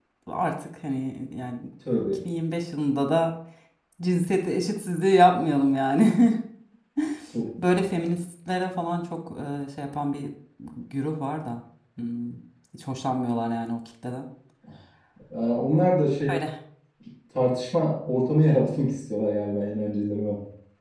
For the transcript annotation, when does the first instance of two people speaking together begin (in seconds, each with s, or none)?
none